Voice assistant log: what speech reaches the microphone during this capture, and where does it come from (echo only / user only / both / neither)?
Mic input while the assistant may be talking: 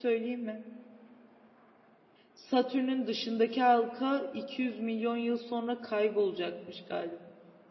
user only